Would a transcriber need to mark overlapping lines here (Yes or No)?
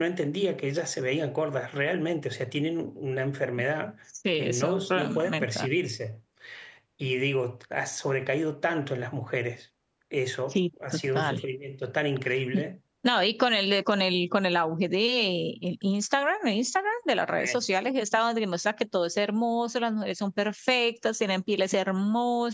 Yes